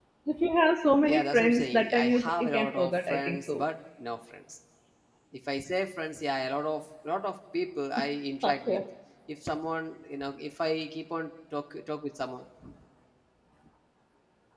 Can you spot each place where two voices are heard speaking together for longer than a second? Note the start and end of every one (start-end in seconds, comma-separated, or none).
1.0-3.6